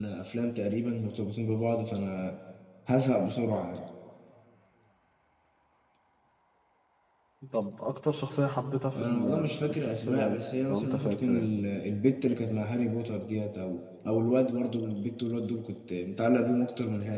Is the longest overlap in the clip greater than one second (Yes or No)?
Yes